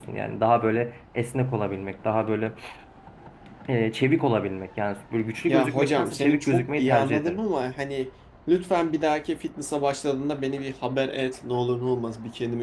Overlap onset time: 5 s

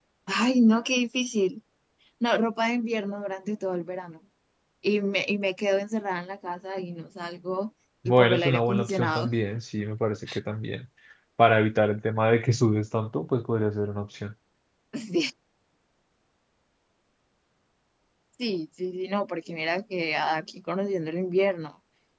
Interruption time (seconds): 8 s

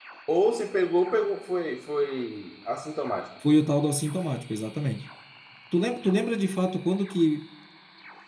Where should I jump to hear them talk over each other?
none

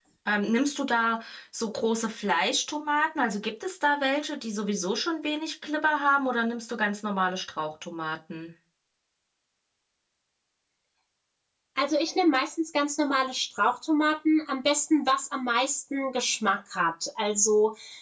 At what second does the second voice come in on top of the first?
none

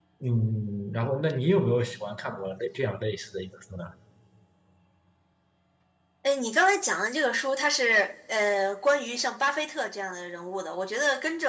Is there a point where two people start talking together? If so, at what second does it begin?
none

